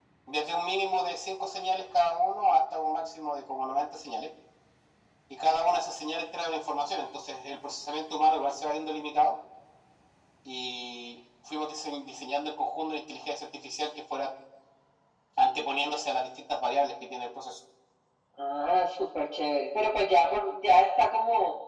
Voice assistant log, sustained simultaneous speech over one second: none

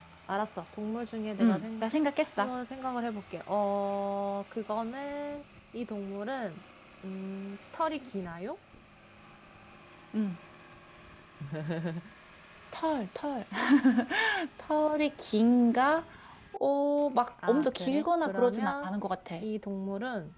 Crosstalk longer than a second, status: present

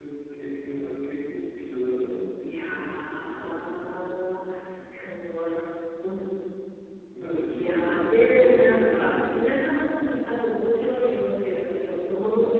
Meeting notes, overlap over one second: present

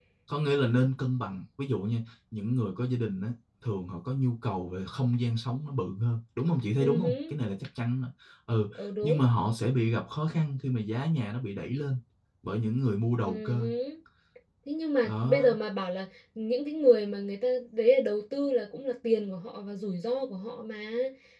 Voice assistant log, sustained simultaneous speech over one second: none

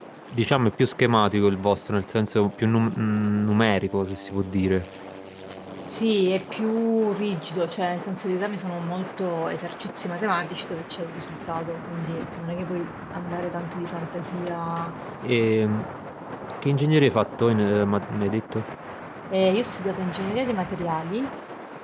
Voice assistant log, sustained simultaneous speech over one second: none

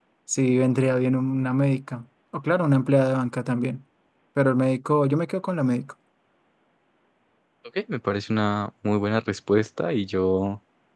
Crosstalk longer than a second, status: none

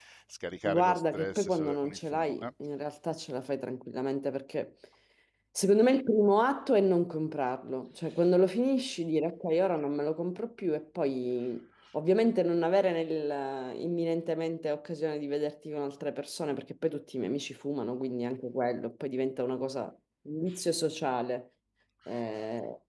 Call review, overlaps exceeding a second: present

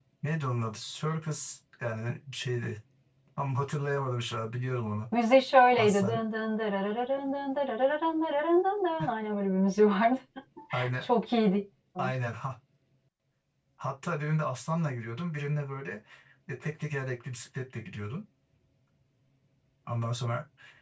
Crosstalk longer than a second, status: none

